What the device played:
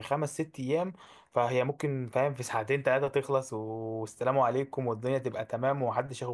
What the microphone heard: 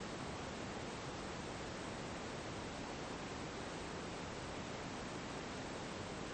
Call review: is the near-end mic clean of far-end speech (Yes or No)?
Yes